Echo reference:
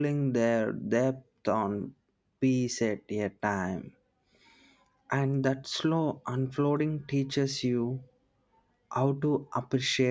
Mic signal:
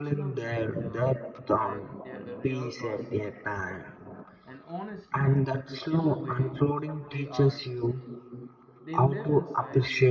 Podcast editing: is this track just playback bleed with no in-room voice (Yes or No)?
No